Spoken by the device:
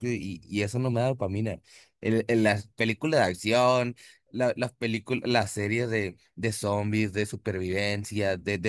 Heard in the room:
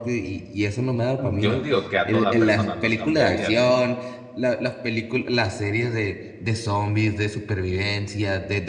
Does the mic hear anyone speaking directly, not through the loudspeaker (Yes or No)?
Yes